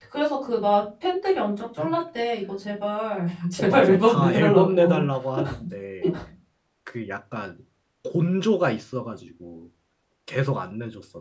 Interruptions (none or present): present